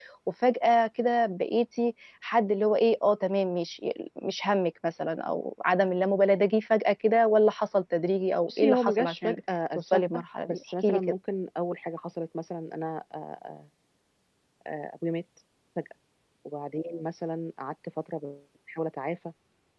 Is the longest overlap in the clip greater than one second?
Yes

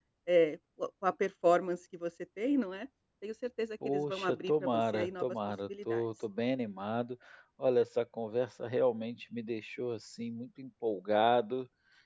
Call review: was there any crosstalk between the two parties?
Yes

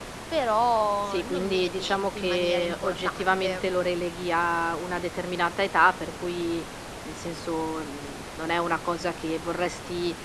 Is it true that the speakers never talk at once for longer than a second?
No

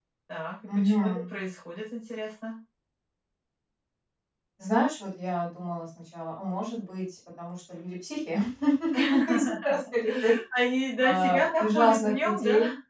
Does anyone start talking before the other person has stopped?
Yes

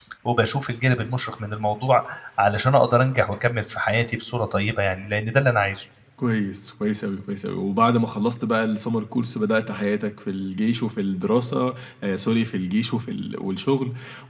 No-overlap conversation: Yes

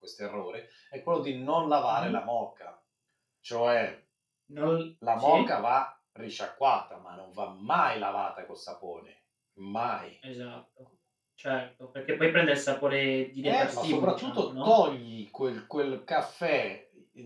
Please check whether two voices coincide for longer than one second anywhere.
Yes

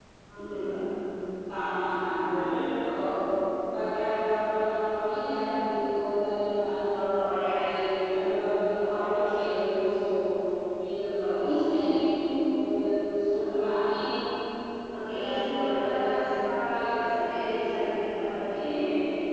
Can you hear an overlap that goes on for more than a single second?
Yes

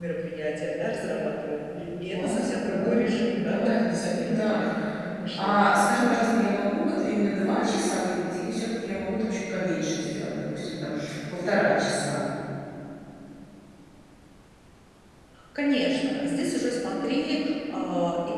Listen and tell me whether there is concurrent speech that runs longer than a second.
Yes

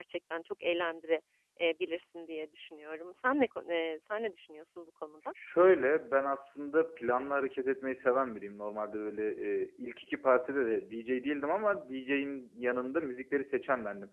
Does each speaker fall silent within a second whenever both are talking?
Yes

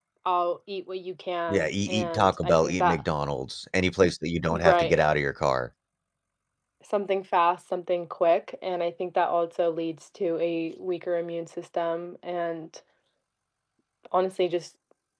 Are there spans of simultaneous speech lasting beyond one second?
Yes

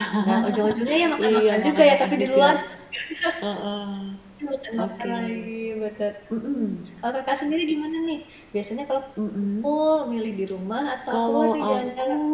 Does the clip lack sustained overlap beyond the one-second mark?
No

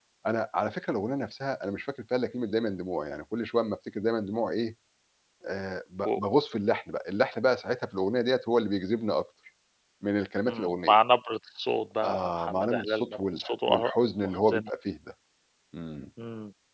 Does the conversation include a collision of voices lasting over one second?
Yes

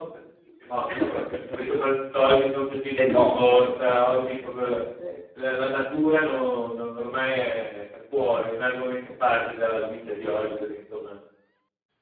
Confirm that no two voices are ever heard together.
No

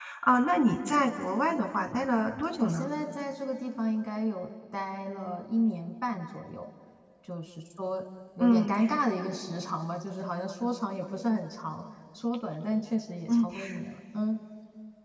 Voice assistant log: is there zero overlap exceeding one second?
Yes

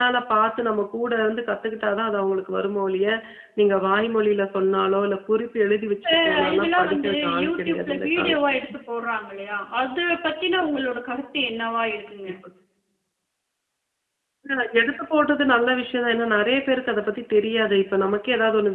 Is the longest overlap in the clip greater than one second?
Yes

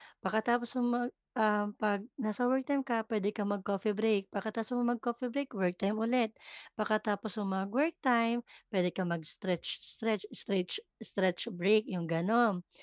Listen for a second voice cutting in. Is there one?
No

